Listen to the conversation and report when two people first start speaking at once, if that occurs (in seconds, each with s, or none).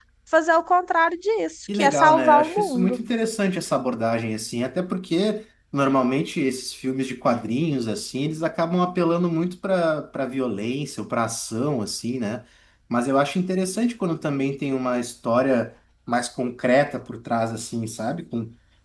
1.7 s